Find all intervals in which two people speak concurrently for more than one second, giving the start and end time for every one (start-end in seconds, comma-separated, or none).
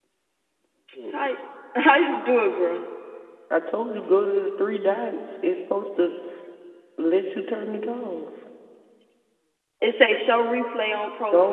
none